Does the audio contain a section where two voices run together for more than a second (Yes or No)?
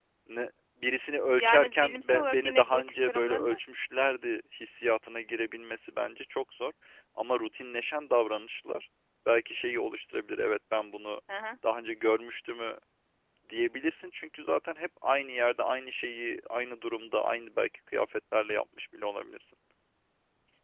Yes